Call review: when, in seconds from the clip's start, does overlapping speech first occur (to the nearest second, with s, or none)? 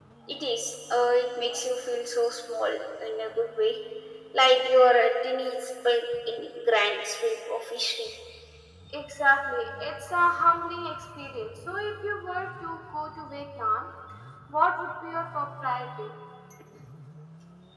none